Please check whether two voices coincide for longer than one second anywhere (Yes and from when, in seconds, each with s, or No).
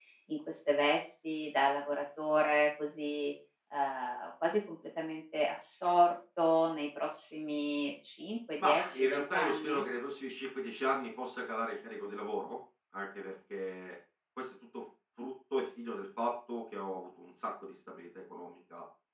Yes, from 8.6 s